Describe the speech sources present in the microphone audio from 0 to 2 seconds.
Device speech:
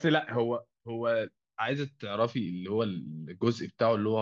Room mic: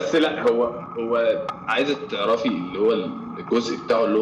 echo only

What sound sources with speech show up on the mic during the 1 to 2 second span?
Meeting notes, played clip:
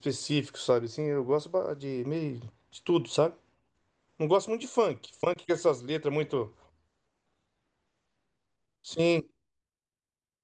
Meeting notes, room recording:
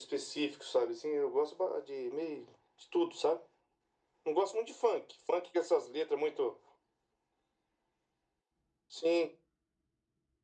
echo only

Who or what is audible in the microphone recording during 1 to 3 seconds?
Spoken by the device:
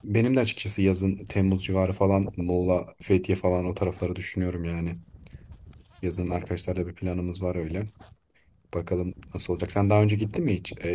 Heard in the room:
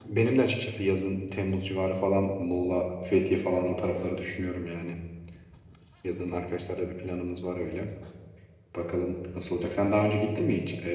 echo only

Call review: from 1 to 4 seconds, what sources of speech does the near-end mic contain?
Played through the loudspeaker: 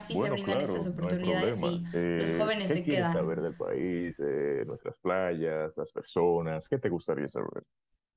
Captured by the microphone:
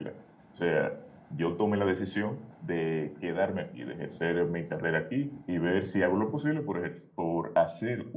user only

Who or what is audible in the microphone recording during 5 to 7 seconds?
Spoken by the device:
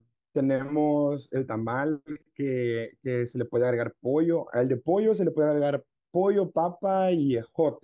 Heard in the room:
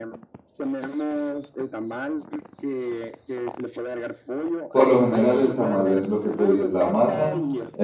both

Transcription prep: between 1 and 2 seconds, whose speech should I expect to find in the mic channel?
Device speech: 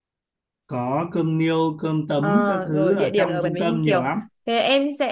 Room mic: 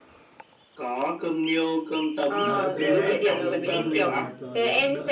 echo only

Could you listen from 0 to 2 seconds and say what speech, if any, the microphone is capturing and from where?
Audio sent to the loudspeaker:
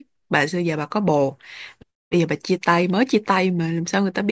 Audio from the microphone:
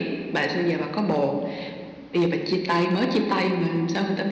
echo only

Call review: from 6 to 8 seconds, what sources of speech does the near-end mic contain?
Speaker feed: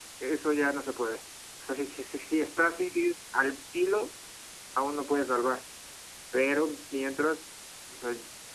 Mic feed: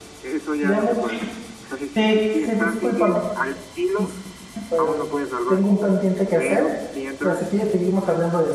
both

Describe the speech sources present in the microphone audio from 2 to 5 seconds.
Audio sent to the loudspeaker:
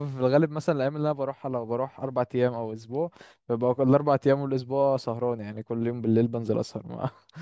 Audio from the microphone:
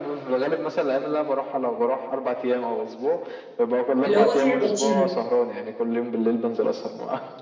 both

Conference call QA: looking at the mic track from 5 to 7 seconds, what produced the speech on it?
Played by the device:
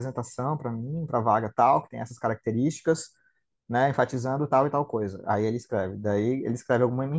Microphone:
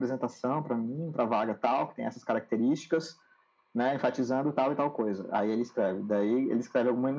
echo only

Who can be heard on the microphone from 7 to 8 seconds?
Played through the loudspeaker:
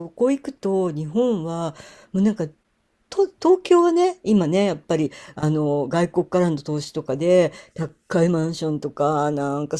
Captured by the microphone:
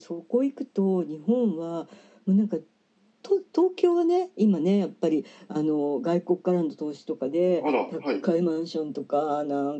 both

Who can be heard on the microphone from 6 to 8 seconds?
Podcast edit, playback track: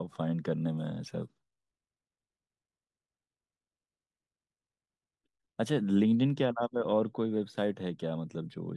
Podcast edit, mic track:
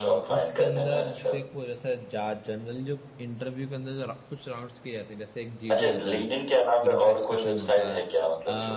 both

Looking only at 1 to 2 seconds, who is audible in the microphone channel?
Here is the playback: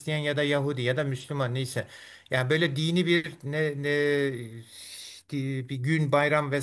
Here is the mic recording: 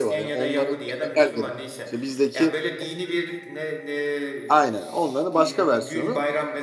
both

